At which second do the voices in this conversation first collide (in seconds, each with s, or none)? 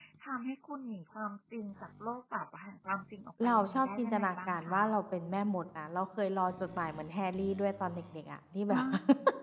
3.4 s